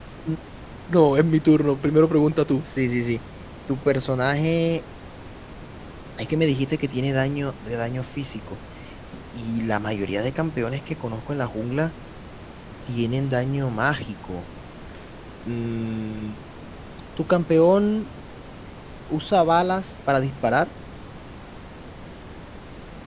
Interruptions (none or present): none